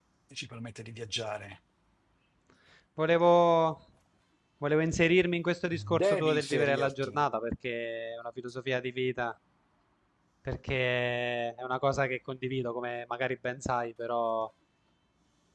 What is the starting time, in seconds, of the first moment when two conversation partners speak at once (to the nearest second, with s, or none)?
6 s